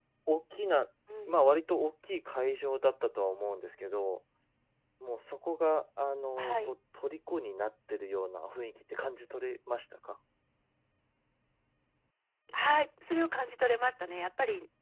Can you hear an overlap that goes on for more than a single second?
No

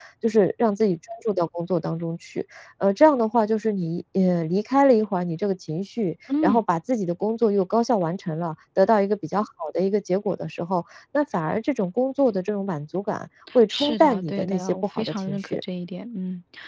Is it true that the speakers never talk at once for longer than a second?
No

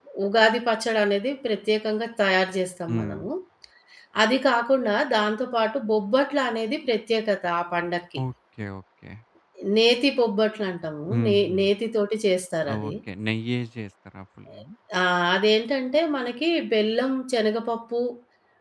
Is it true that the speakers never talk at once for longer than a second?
Yes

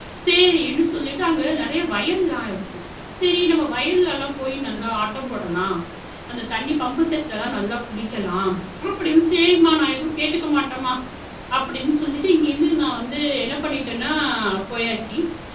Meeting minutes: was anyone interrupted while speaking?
No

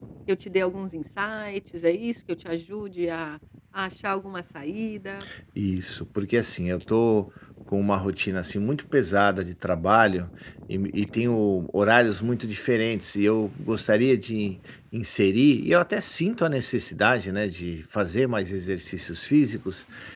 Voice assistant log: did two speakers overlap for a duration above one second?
No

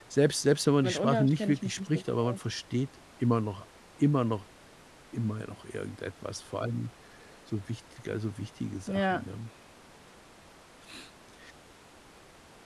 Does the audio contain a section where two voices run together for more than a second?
Yes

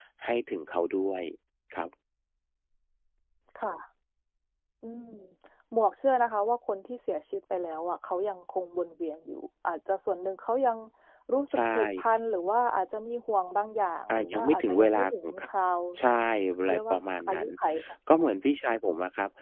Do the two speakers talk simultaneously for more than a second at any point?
Yes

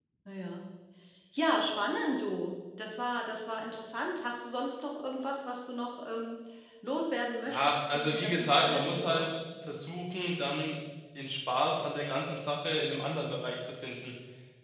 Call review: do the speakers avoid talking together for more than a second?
No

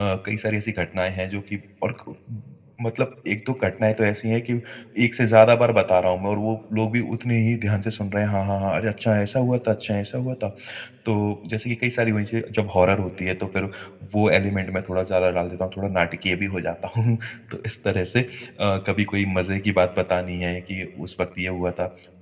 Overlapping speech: No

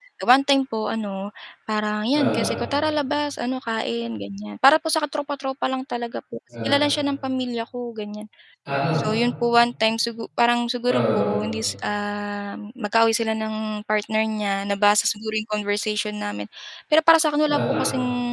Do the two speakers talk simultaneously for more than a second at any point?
No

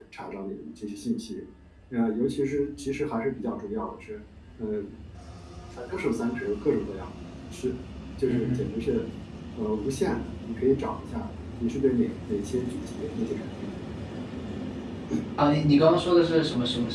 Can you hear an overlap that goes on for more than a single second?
No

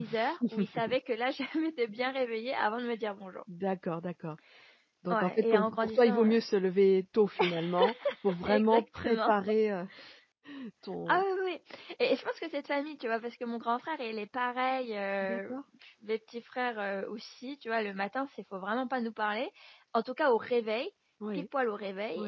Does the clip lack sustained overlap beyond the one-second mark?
No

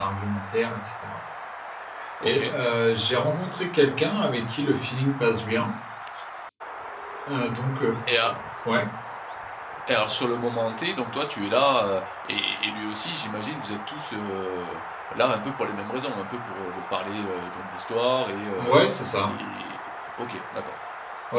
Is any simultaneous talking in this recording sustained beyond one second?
No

